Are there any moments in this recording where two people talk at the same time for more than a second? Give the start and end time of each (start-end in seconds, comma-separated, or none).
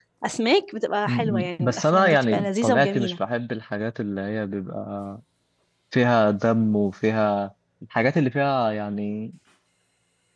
1.0-3.1